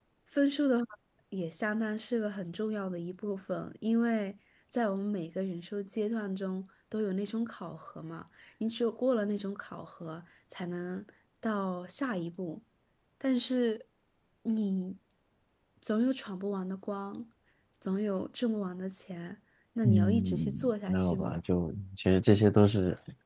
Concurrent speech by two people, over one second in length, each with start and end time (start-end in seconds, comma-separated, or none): 19.8-21.4